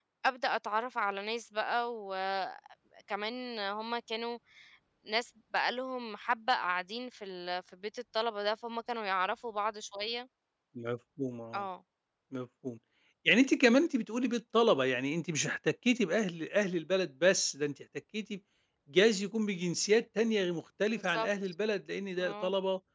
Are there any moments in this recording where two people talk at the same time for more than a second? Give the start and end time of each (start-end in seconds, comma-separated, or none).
none